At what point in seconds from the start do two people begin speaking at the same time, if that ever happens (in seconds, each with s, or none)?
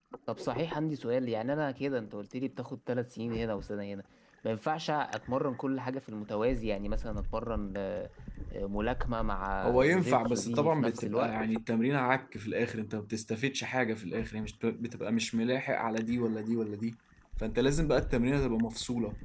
9.6 s